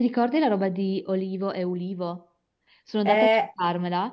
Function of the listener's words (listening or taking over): listening